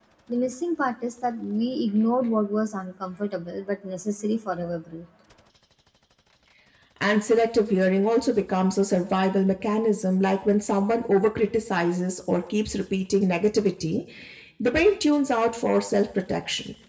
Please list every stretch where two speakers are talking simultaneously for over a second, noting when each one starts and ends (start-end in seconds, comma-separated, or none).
none